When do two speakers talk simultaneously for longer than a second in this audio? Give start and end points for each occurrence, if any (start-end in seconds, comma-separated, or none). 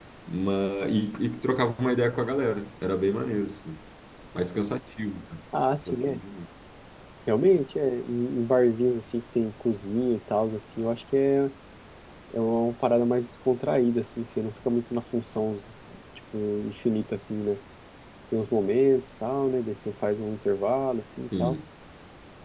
none